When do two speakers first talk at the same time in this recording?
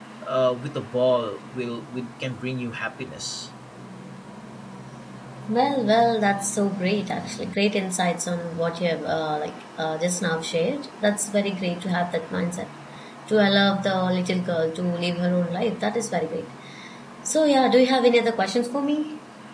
none

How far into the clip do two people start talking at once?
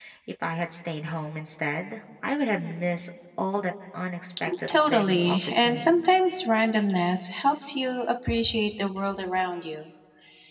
4.5 s

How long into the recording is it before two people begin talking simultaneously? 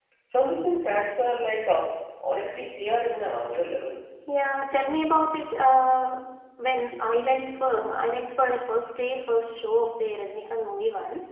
none

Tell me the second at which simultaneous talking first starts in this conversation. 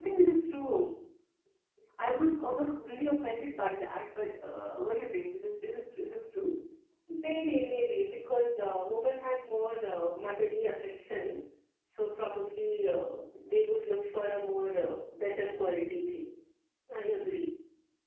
none

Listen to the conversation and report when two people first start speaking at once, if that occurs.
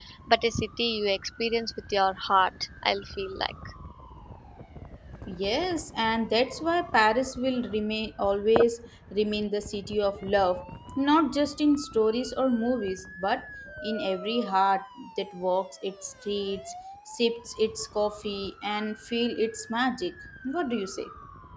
none

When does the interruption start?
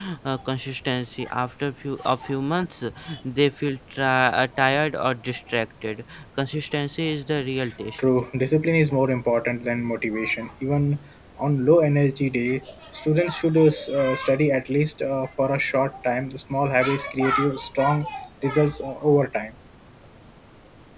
none

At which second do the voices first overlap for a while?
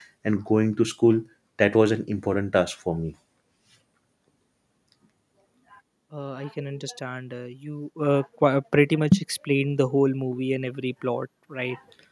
none

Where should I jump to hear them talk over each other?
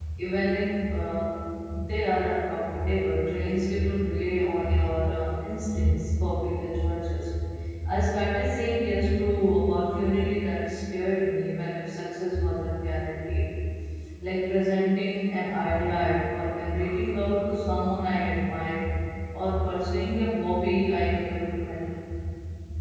none

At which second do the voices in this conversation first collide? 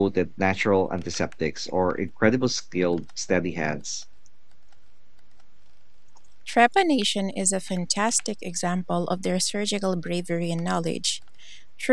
none

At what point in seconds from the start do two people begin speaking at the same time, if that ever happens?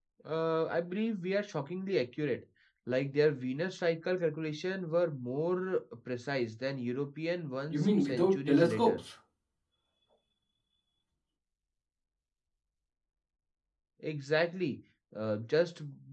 7.7 s

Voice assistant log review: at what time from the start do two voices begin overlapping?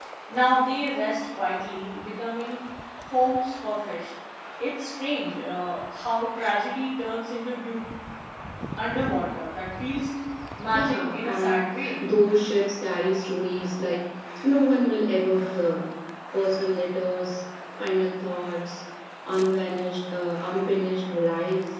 10.7 s

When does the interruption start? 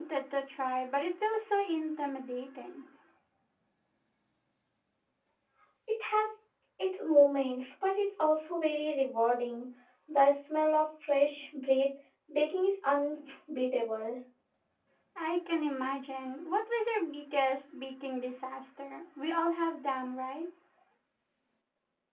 none

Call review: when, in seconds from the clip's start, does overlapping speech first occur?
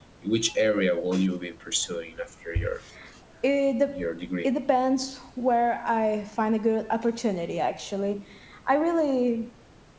none

